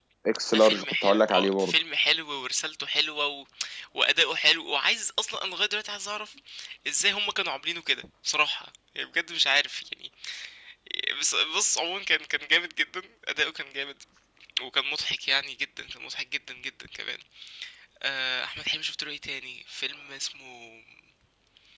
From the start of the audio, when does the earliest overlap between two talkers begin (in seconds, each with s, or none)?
0.5 s